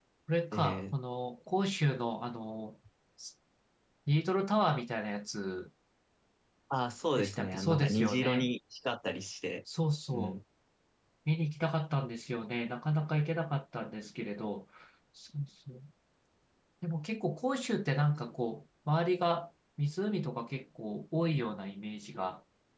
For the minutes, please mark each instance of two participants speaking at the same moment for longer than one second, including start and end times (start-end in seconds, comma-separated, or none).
7.2-8.5